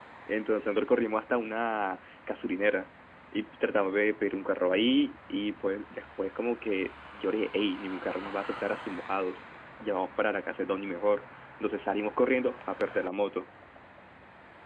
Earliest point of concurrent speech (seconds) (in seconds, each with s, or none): none